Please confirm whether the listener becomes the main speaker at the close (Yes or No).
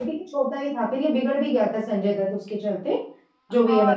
Yes